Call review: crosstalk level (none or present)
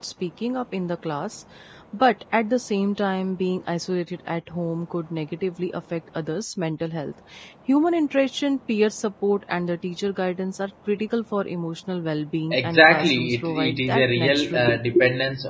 present